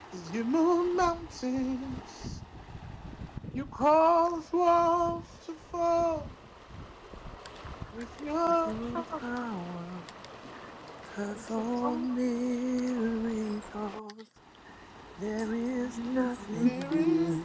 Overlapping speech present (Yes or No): Yes